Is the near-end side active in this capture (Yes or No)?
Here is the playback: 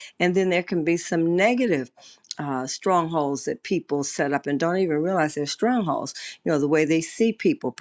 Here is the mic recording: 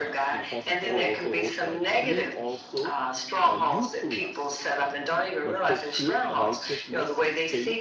Yes